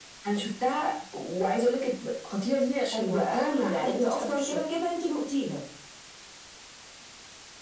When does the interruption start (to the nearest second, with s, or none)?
3 s